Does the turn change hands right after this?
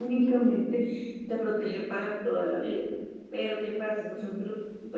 No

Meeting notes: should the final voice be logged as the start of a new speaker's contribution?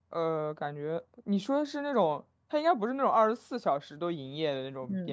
Yes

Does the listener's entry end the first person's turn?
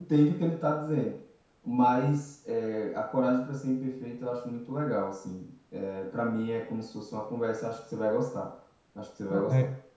Yes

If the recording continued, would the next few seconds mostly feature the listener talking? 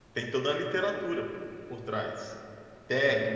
No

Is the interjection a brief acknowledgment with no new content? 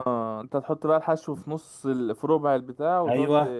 No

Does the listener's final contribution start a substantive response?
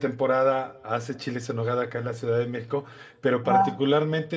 No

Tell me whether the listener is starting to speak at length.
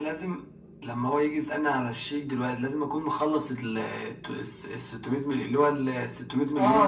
Yes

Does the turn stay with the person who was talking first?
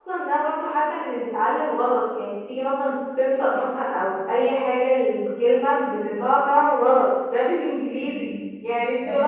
Yes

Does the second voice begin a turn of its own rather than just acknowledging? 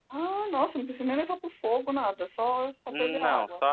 Yes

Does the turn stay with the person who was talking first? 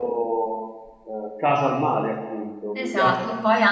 No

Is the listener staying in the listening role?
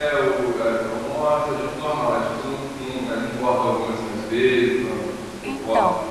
No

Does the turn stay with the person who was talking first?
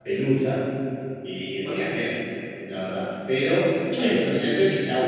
Yes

